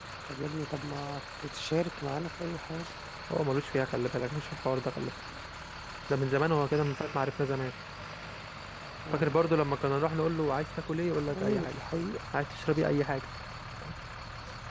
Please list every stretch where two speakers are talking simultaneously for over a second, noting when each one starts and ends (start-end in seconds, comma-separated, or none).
none